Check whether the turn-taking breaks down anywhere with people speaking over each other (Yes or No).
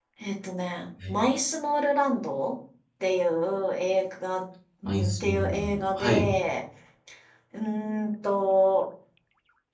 Yes